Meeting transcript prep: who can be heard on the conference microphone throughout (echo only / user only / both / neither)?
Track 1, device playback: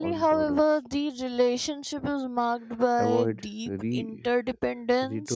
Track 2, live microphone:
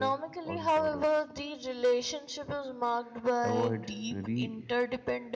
echo only